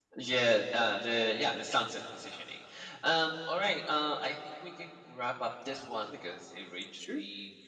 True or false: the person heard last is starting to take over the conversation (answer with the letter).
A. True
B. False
A